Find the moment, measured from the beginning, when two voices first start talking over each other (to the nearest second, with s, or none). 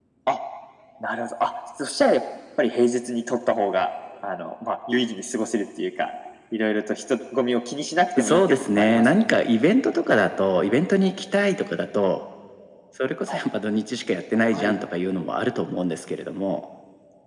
8 s